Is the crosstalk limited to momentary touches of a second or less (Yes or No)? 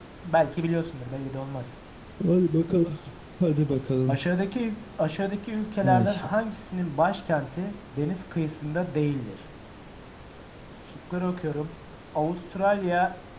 Yes